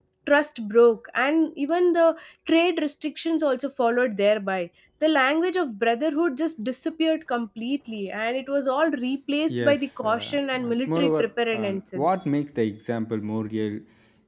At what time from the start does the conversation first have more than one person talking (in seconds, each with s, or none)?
9.5 s